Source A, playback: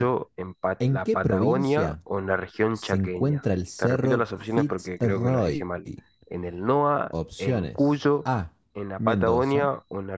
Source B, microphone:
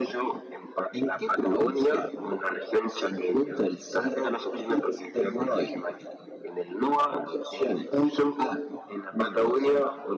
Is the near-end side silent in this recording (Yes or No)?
Yes